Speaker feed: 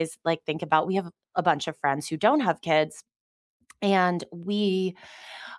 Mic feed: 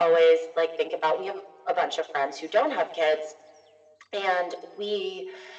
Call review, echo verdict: present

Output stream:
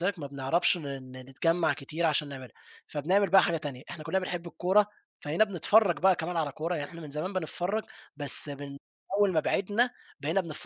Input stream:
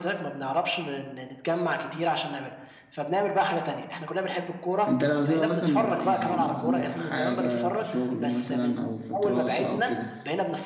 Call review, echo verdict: present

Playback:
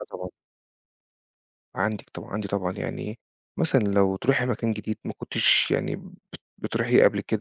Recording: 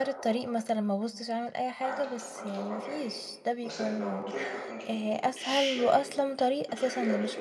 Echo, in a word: present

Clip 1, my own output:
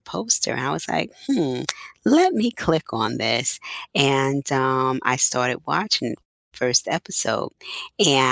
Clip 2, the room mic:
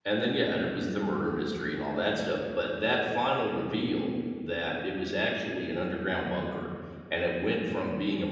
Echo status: none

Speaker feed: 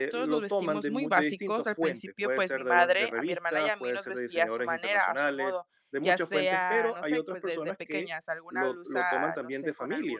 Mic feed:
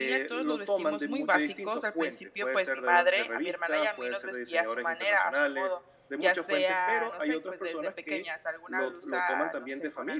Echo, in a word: present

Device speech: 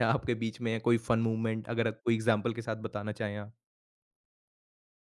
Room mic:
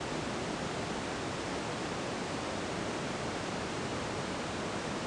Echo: none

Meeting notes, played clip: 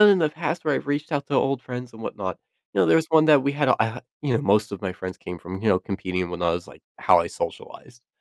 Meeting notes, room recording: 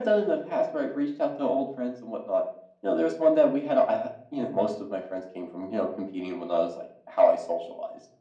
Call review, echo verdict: present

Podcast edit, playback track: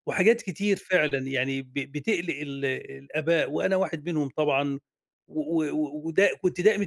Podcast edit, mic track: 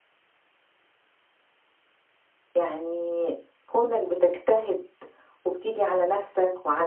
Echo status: none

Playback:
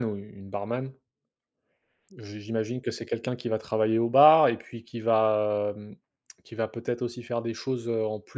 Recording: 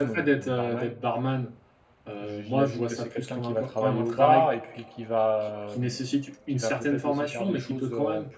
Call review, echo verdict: present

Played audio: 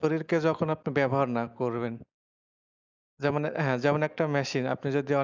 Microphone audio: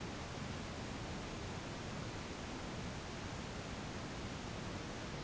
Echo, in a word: none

